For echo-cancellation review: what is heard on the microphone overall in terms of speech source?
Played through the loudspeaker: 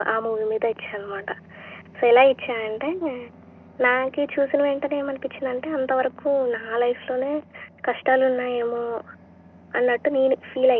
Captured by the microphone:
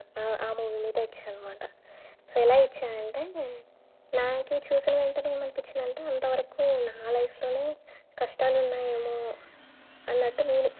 echo only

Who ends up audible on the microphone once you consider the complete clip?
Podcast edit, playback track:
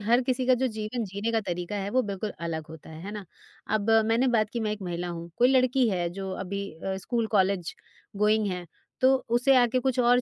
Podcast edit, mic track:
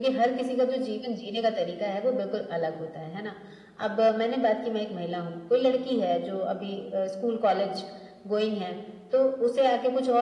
echo only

